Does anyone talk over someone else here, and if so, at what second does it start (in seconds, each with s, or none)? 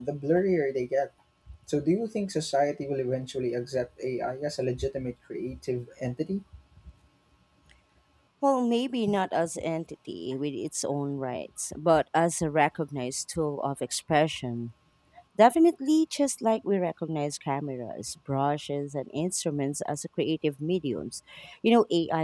none